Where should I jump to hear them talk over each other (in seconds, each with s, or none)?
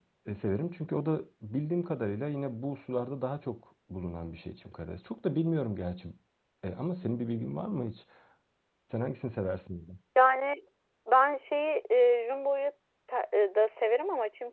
none